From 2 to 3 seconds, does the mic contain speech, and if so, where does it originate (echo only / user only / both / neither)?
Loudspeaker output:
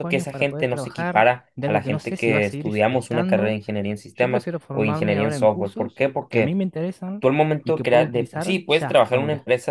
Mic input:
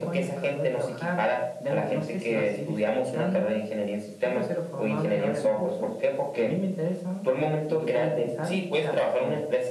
echo only